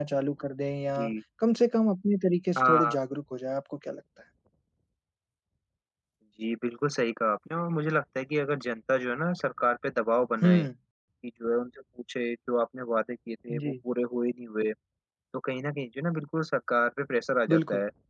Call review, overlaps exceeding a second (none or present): none